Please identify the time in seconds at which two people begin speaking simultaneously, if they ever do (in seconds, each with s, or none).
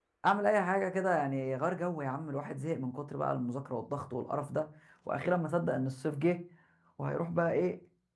none